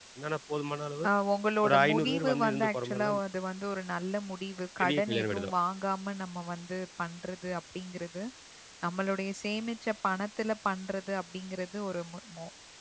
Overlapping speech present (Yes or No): Yes